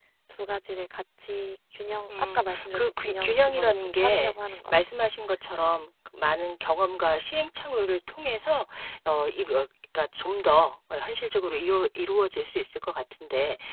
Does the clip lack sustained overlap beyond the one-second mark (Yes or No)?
No